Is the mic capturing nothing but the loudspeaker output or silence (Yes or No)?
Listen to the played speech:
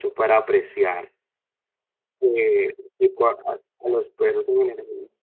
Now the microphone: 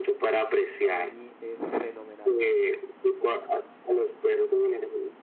No